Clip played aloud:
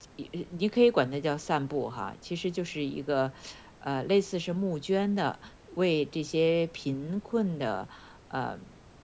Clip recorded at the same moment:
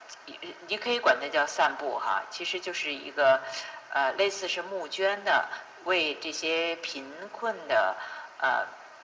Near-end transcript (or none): none